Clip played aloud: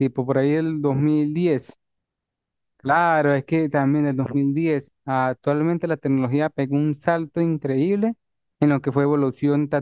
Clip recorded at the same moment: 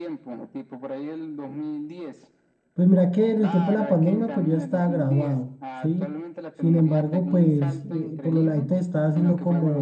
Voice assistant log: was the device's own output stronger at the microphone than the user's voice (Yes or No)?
No